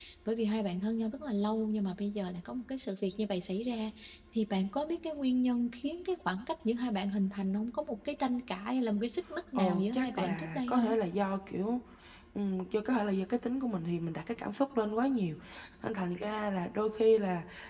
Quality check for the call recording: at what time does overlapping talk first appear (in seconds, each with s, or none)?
9.6 s